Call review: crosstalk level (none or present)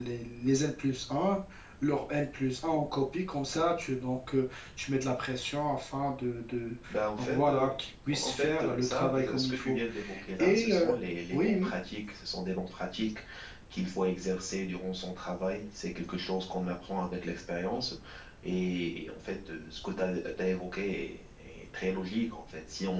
present